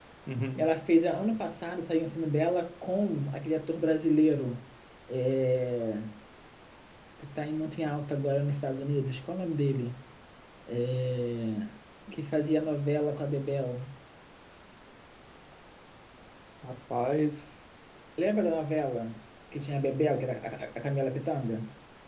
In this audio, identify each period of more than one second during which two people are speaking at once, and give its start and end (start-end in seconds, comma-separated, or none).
none